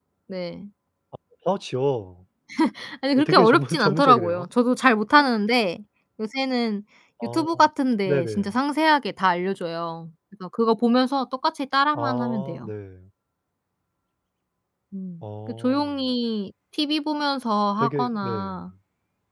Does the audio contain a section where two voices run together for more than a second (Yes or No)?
Yes